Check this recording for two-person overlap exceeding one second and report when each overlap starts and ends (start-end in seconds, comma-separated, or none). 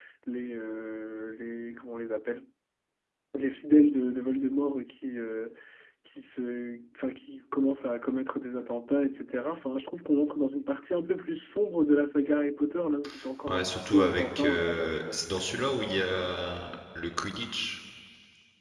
13.5-15.2